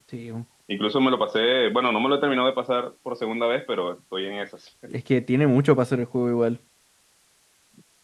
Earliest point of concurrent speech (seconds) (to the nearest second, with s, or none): none